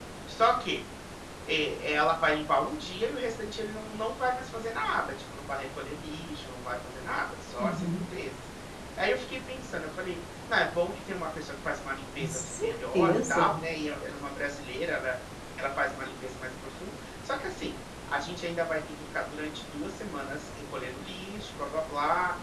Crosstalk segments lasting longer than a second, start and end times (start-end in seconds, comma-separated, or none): 12.2-13.6